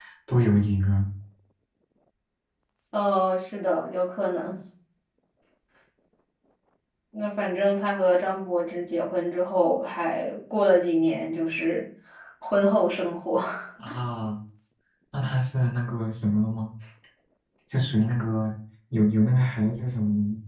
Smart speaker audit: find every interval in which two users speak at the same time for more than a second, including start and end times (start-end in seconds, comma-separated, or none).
none